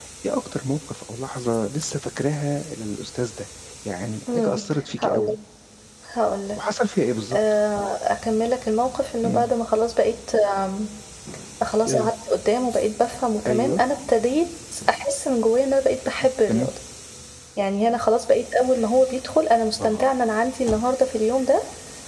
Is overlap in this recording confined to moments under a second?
Yes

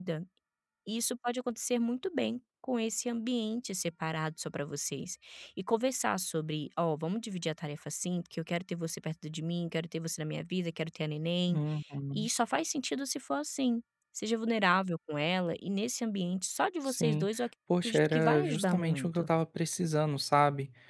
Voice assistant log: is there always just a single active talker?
No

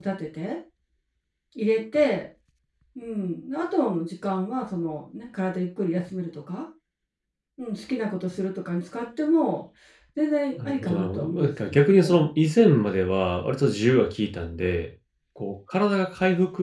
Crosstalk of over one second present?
Yes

